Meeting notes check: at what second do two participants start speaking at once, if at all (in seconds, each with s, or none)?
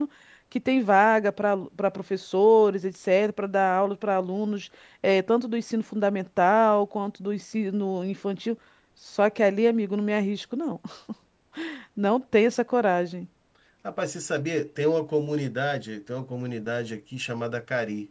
none